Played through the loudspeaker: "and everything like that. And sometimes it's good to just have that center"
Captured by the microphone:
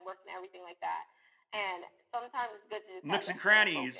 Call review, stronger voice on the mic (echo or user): user